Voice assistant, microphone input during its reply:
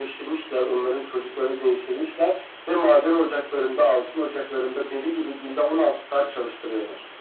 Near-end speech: none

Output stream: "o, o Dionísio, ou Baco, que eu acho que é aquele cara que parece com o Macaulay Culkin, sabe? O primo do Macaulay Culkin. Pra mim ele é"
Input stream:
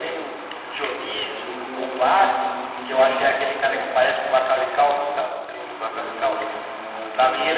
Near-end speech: present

